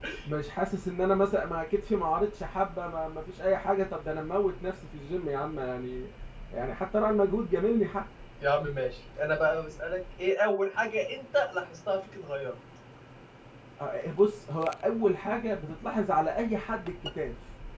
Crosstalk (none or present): none